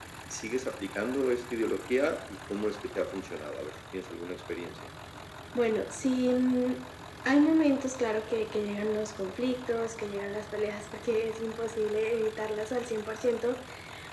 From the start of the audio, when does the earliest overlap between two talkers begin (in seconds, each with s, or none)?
none